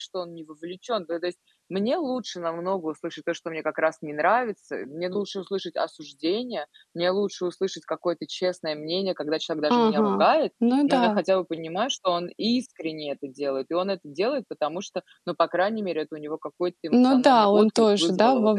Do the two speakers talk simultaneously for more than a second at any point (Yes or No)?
Yes